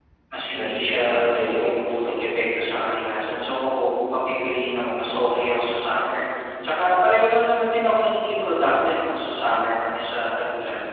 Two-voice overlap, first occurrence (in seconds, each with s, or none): 0.6 s